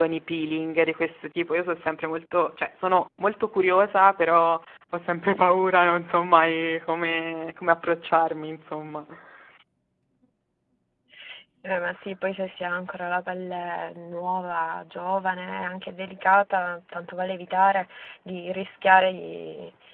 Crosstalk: none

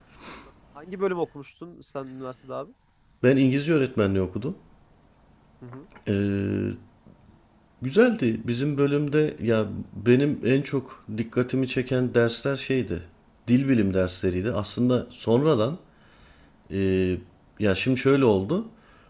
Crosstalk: none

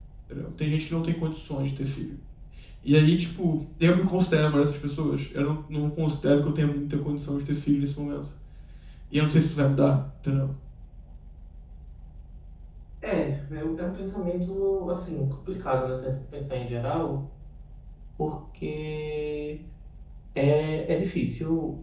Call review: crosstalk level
none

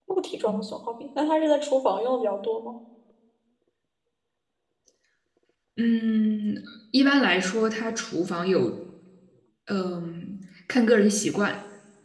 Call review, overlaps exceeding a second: none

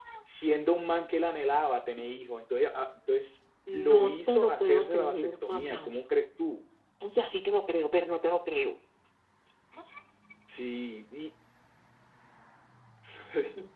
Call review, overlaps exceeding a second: present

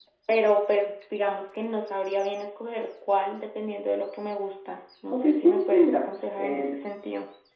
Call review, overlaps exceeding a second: present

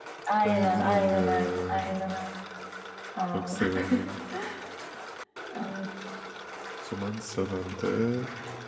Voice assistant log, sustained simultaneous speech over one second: present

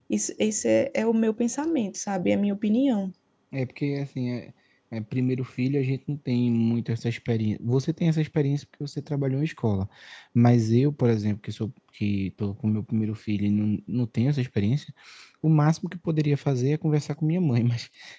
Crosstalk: none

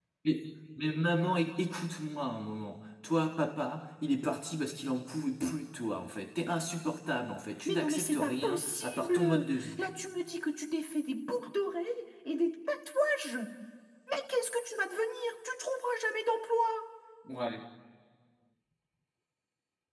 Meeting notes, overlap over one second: present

